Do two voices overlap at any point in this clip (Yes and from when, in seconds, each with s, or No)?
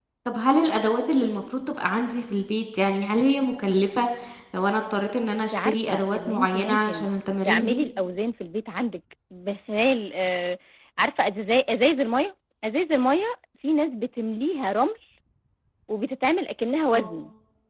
Yes, from 5.5 s